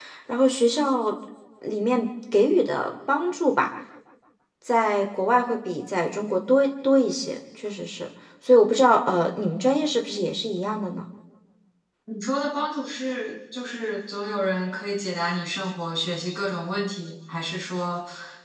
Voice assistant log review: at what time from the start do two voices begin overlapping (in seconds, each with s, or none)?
none